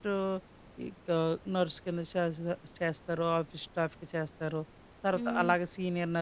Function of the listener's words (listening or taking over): listening